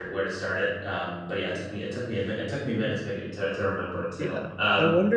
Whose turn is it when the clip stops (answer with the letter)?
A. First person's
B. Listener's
B